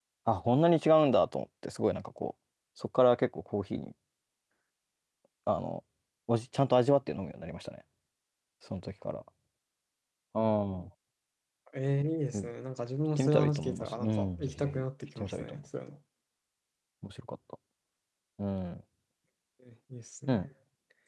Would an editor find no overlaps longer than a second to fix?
No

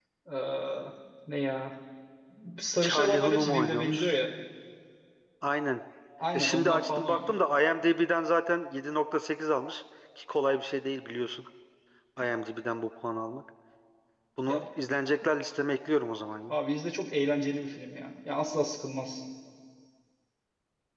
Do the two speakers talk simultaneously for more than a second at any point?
Yes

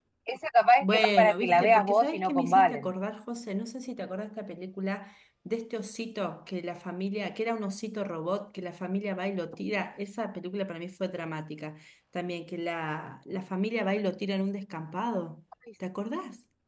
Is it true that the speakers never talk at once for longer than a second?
No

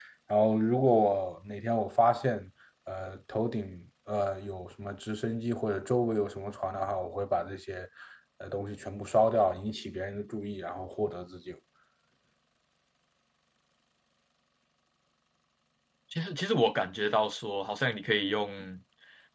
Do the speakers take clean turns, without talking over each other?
Yes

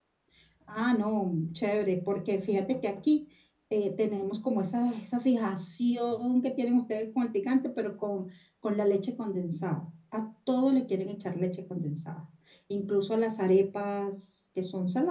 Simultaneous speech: No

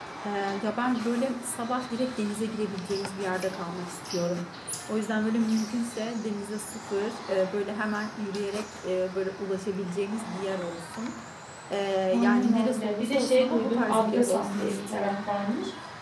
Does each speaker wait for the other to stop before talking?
No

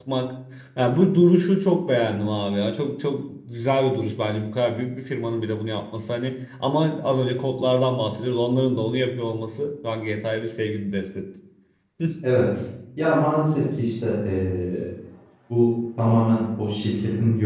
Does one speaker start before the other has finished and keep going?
No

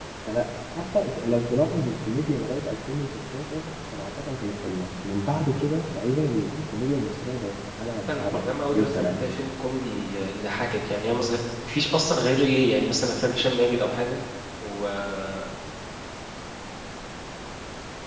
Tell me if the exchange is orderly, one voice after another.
No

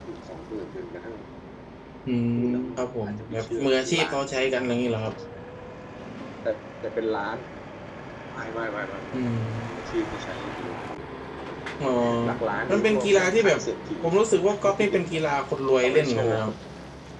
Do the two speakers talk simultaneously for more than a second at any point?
Yes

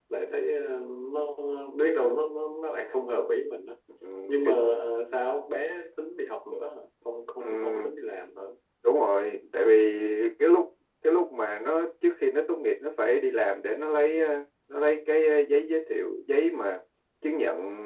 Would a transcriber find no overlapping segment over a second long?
Yes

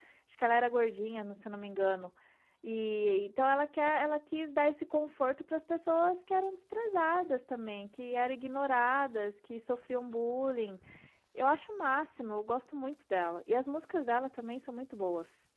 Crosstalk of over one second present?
No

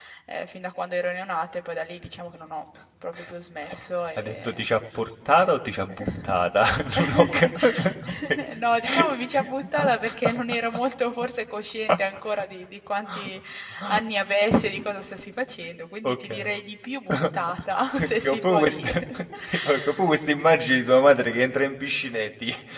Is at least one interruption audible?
Yes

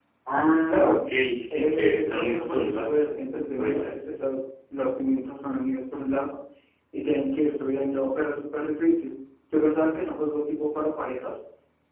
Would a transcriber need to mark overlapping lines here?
Yes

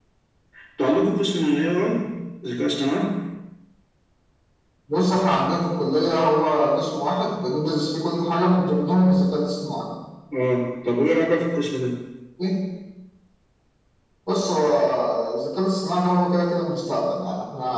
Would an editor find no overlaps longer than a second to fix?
Yes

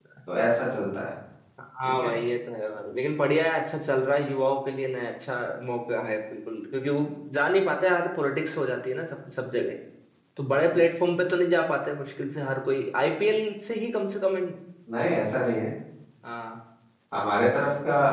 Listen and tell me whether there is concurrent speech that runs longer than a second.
No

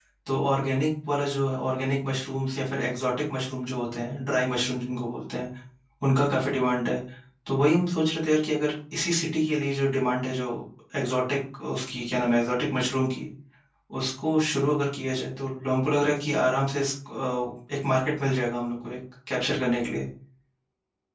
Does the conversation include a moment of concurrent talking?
No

